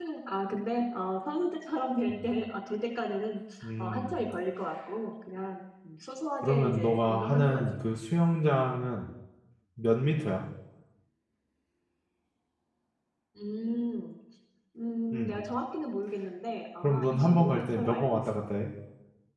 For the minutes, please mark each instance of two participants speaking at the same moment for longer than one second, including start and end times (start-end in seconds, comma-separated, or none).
6.4-7.8, 16.8-18.4